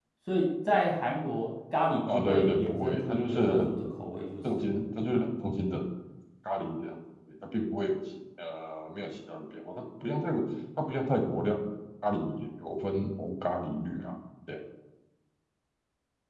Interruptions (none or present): present